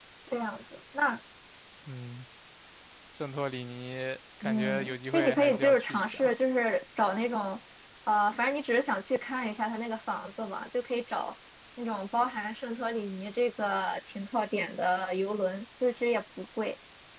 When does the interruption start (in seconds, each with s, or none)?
4.4 s